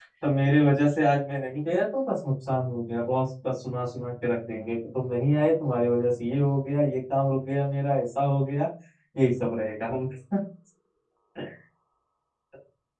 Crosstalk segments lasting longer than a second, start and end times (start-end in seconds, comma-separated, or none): none